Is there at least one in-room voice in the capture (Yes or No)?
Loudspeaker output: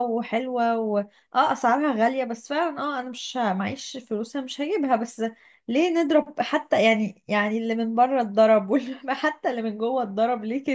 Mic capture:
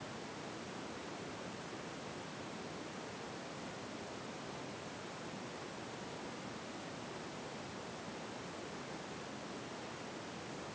No